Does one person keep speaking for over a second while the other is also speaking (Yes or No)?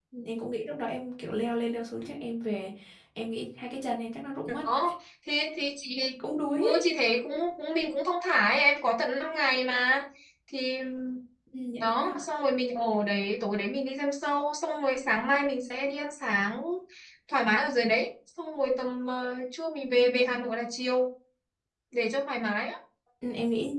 No